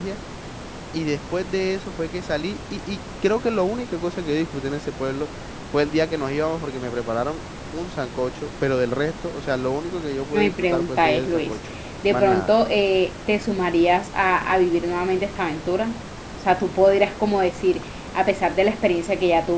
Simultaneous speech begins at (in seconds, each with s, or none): 10.3 s